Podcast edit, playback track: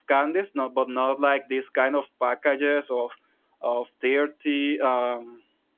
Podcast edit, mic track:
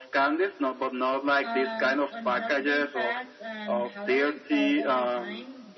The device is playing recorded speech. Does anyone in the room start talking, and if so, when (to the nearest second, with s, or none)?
1 s